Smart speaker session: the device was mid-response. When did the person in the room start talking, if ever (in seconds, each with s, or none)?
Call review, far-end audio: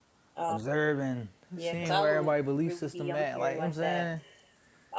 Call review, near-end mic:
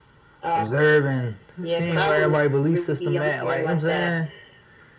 none